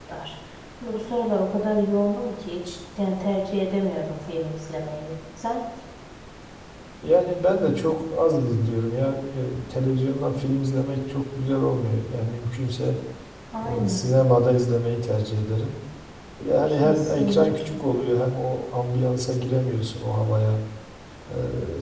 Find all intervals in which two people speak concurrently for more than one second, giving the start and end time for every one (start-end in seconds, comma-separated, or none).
16.7-18.0